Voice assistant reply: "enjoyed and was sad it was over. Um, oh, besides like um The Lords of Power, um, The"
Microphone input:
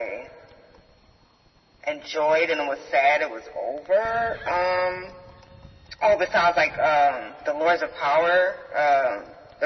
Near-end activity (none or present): none